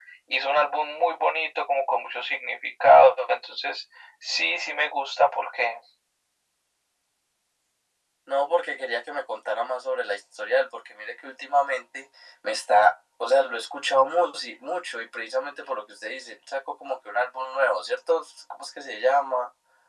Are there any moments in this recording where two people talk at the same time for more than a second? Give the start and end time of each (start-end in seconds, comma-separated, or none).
none